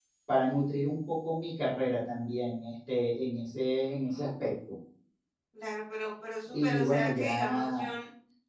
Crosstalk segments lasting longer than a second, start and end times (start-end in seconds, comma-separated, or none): 6.5-7.9